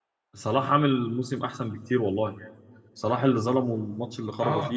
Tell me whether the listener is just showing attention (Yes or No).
No